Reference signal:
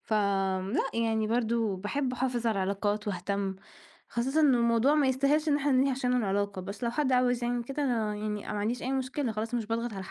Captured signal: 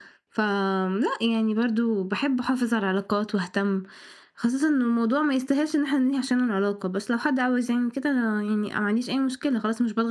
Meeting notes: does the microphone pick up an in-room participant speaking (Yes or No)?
No